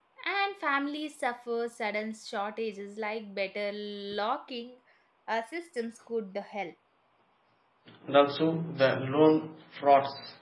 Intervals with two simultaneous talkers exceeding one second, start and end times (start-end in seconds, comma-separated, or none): none